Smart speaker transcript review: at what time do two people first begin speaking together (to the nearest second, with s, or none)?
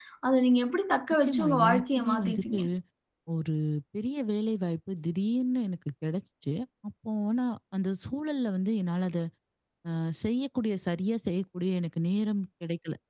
1 s